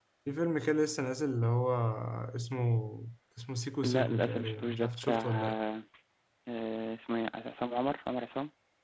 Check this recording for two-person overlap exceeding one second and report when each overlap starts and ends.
3.8-5.6

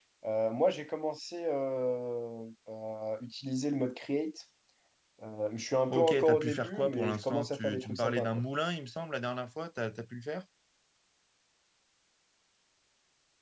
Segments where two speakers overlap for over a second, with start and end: 5.9-8.4

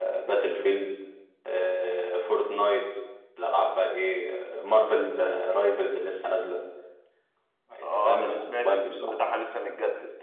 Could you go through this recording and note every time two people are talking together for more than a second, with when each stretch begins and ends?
7.8-9.4

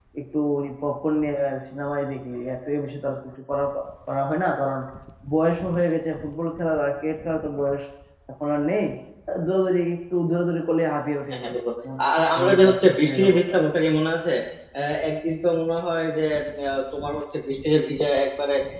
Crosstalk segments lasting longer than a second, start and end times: 12.4-13.6

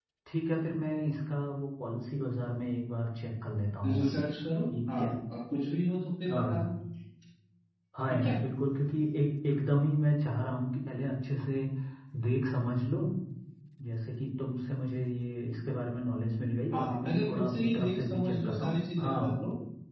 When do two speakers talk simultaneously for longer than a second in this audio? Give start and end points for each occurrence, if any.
16.7-19.4

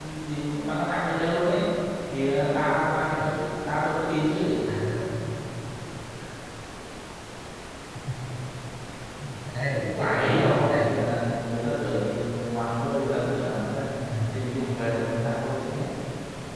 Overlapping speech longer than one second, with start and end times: 9.6-10.9

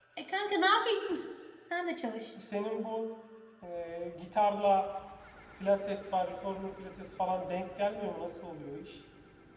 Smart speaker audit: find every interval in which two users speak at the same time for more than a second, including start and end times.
none

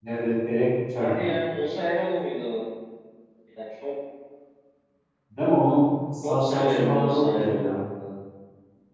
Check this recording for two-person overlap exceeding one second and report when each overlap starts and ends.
6.2-7.8

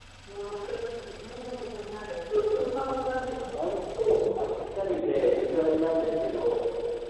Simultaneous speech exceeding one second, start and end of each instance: none

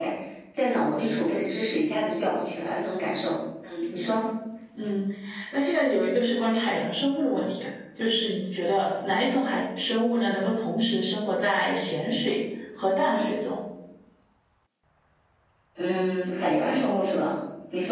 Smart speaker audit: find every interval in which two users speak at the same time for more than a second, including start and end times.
none

